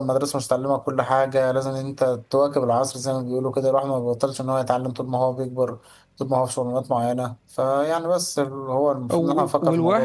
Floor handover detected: Yes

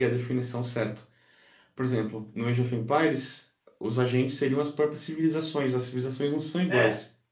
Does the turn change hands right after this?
Yes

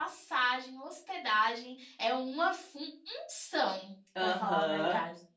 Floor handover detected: Yes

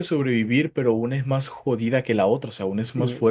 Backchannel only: No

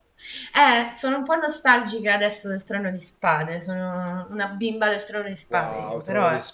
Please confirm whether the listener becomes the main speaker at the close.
Yes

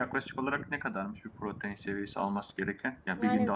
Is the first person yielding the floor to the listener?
No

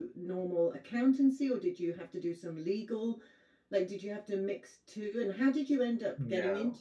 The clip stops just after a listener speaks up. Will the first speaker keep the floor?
No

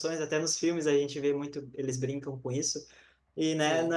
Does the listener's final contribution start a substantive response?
No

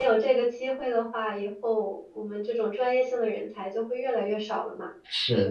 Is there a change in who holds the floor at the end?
Yes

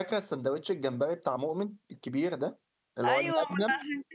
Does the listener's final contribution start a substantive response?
Yes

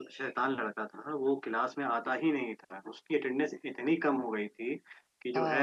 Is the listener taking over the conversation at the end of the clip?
No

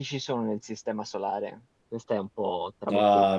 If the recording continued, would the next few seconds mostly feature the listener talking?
Yes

